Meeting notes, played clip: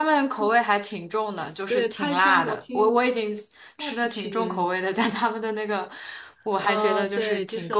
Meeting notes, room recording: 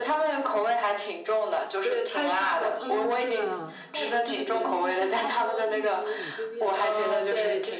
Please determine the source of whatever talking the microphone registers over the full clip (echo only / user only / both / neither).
both